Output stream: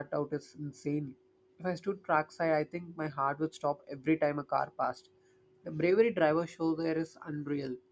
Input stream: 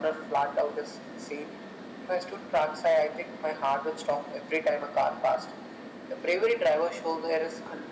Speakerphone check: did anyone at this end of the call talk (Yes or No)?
No